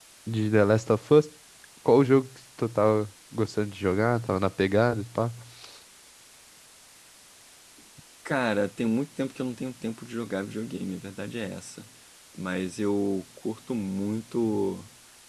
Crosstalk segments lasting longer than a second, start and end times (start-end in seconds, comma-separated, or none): none